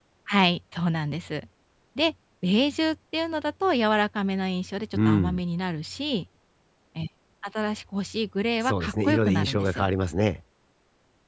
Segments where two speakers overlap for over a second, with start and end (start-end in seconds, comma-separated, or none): 8.6-9.9